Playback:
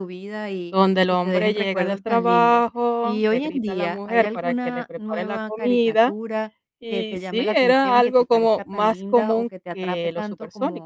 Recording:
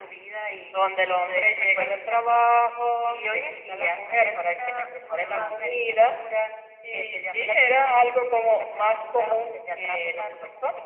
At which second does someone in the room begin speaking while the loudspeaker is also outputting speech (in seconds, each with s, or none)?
5.2 s